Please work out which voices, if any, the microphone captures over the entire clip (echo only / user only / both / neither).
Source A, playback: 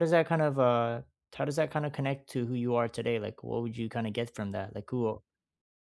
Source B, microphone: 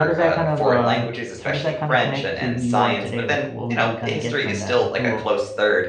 both